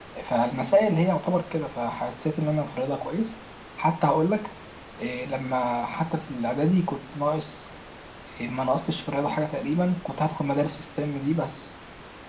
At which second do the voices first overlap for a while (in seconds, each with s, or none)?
none